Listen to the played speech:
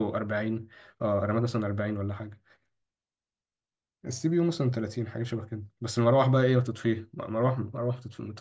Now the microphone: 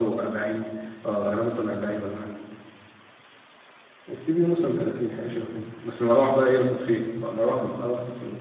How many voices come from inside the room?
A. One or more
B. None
B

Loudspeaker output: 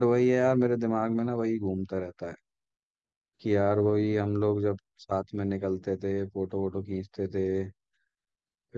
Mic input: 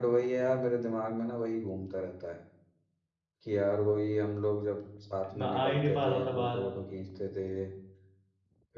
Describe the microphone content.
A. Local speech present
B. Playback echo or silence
A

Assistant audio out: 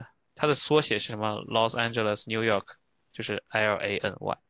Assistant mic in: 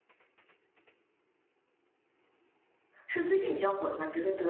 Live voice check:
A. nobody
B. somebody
B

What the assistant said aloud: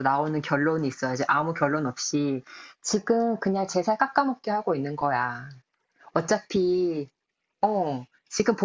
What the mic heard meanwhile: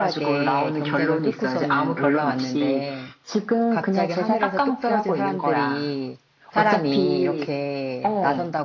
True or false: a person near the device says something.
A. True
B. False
A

